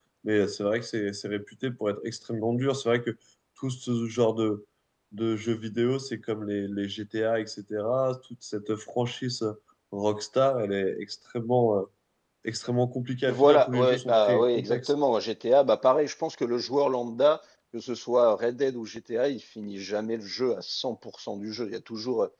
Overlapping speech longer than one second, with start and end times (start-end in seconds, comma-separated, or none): 13.3-14.9